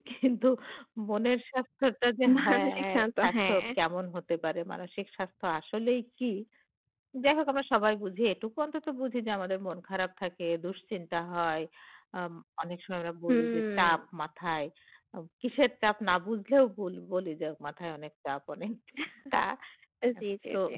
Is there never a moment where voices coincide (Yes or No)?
No